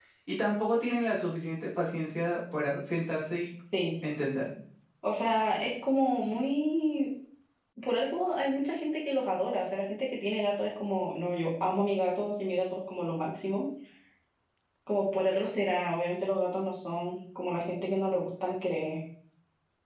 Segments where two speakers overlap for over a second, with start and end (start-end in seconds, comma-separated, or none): none